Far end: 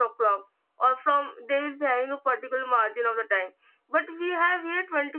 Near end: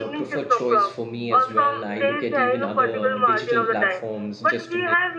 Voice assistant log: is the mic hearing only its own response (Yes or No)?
No